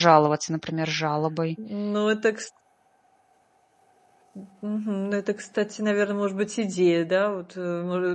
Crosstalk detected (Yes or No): No